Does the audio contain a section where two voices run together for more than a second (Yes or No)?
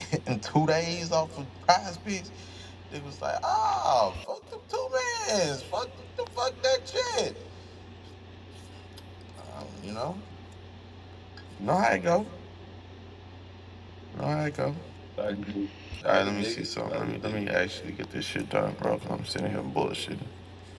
Yes